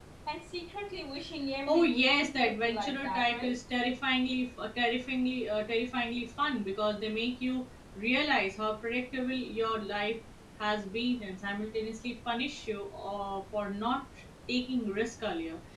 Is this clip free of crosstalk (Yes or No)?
No